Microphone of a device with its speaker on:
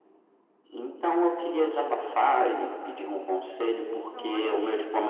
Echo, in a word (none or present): present